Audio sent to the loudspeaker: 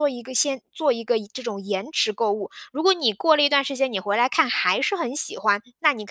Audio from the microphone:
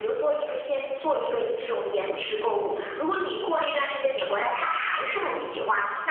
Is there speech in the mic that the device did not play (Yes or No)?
No